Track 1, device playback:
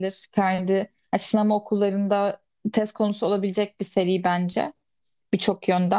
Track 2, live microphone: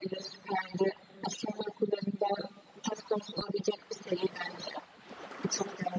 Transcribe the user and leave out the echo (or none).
none